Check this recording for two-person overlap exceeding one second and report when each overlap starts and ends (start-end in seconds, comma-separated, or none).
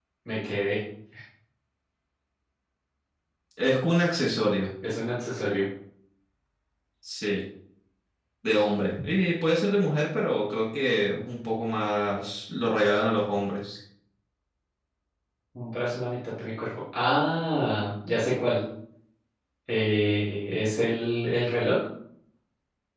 none